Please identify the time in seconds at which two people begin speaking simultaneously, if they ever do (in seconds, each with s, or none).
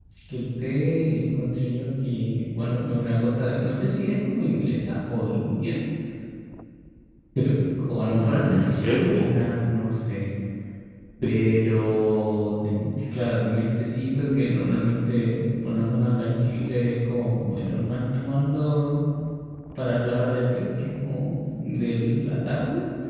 8.2 s